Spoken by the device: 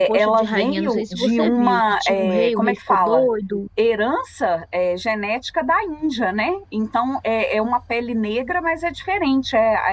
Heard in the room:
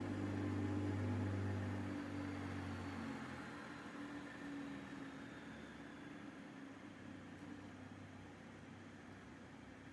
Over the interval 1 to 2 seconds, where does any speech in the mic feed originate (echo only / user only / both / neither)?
neither